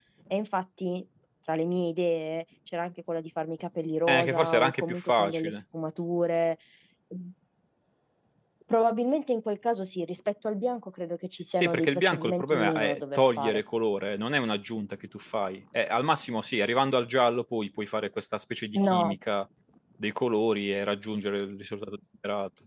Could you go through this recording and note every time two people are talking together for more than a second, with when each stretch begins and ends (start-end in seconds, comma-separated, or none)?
4.1-5.6, 11.6-13.6